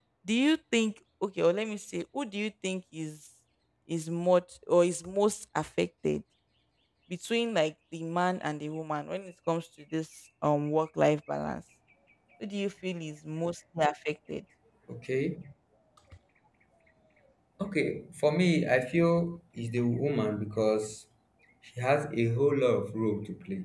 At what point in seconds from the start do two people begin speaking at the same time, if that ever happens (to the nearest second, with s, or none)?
none